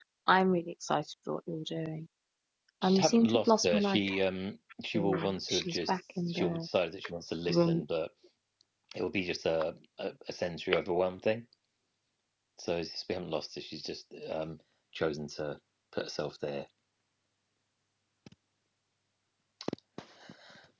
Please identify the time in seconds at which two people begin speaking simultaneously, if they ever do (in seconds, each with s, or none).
2.8 s